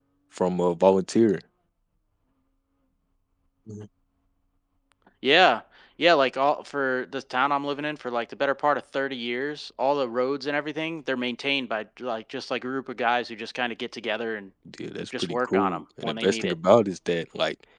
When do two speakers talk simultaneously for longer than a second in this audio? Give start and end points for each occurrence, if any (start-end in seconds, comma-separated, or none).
15.2-16.5